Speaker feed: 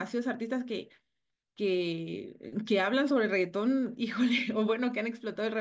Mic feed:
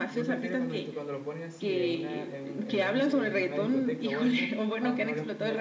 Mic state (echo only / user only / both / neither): both